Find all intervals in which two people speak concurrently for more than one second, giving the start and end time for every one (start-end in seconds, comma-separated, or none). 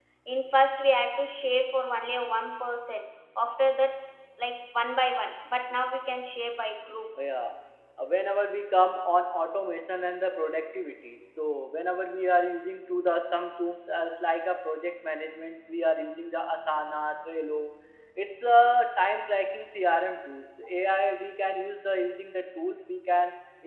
none